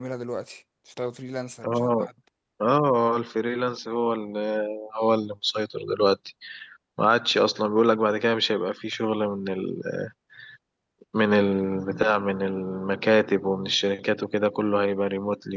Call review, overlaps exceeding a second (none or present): none